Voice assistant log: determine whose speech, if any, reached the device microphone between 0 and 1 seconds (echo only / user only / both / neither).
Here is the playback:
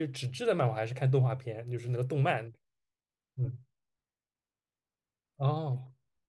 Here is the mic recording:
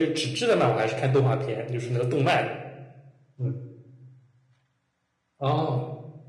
echo only